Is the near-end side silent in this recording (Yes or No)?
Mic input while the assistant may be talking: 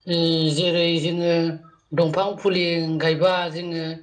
No